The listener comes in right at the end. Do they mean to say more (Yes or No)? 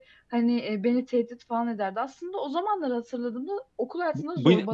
Yes